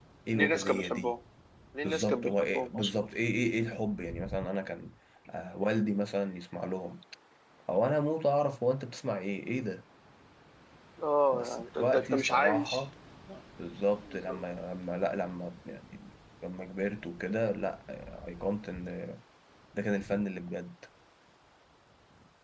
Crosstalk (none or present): present